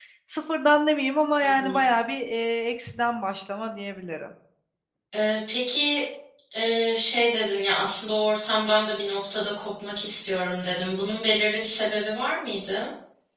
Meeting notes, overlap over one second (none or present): none